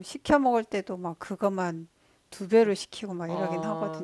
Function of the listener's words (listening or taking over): taking over